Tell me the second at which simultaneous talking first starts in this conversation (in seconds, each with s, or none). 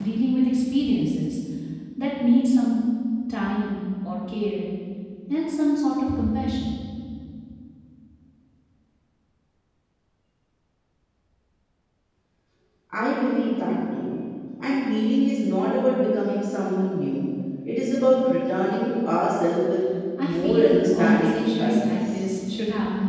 20.2 s